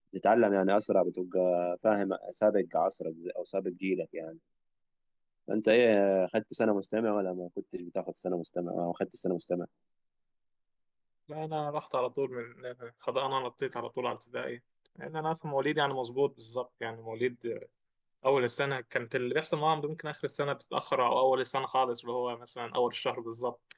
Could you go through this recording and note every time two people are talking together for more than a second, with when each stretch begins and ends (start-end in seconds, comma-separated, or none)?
none